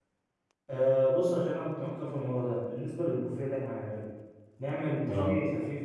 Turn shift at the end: No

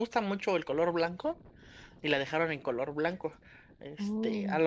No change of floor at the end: Yes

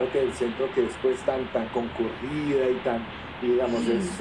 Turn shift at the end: No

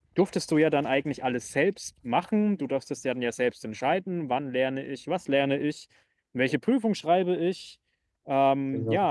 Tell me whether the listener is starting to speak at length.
No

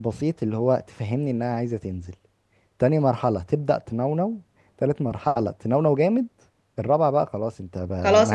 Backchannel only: No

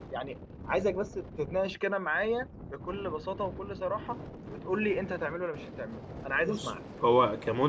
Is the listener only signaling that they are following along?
No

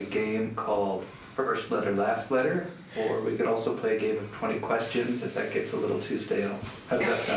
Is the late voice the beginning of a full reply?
Yes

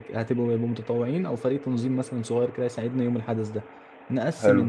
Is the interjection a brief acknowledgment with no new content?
Yes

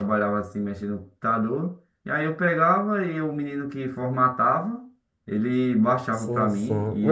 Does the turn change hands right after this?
Yes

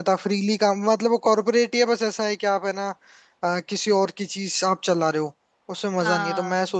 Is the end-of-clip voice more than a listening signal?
No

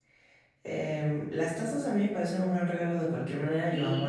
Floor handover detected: Yes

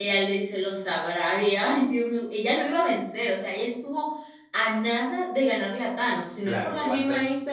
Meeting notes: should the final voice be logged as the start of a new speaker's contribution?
Yes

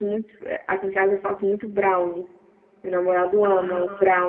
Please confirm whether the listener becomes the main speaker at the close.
No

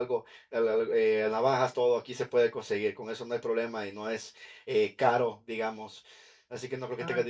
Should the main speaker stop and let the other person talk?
No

